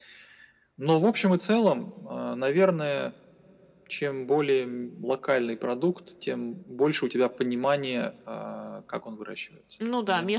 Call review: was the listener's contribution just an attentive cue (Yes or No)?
No